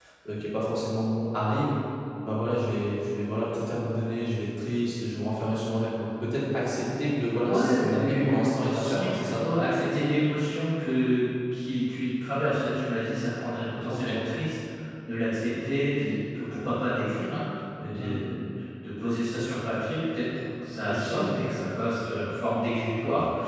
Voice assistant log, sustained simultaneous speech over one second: present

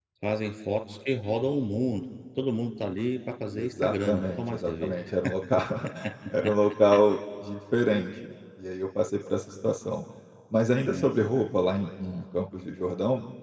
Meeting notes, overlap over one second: present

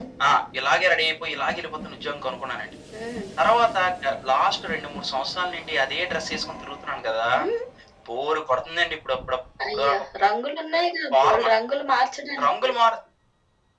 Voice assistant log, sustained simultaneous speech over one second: none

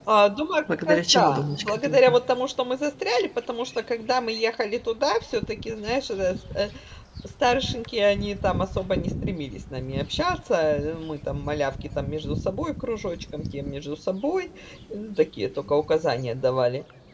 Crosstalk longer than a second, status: present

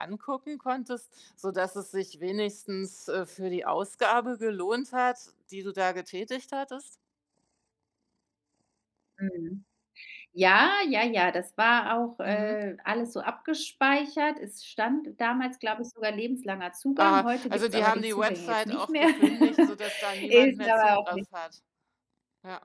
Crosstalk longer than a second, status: present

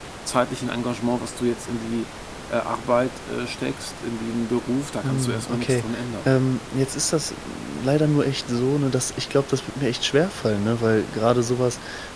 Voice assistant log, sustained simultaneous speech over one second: present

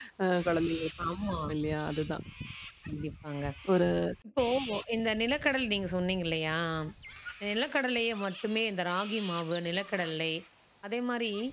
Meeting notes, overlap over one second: none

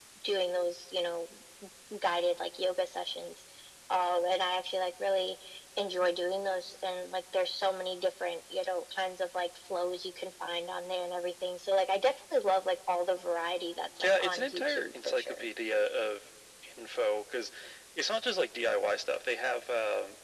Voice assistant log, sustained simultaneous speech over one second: present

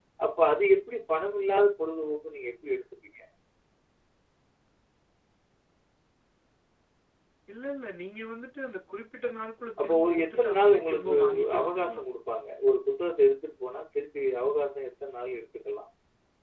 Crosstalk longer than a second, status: present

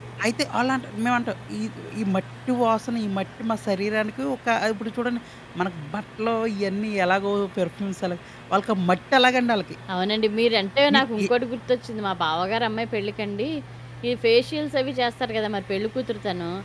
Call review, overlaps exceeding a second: none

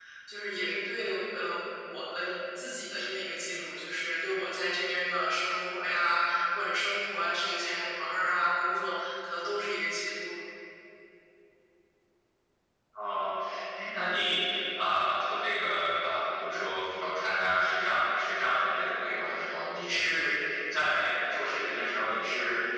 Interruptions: none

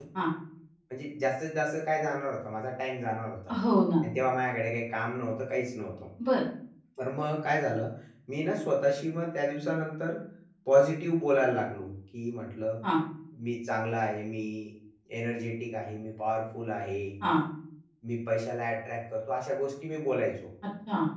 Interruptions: none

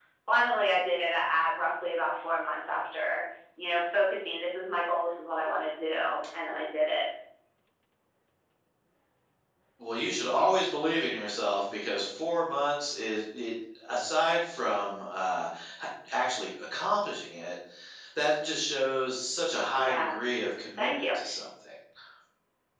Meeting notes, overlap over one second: none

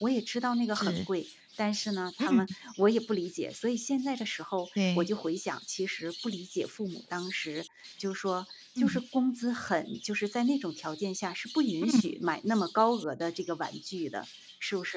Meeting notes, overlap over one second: none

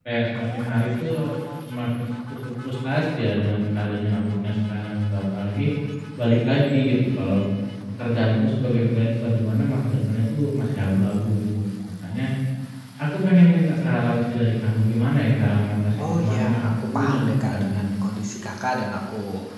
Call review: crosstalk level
present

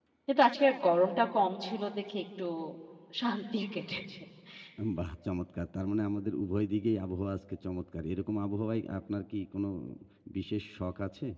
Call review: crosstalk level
none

